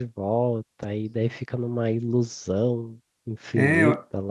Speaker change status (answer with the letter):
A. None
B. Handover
B